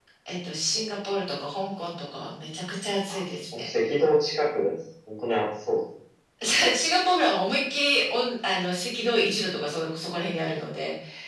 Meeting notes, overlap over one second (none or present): none